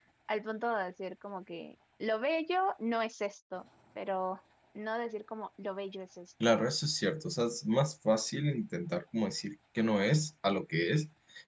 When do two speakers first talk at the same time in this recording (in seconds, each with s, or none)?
none